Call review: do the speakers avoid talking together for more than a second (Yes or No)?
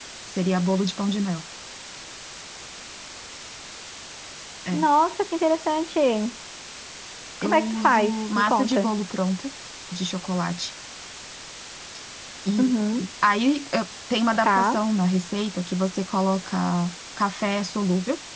No